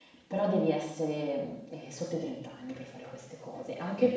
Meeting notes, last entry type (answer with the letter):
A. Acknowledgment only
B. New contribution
A